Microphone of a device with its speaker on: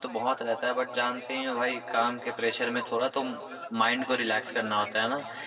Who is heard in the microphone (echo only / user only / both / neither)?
both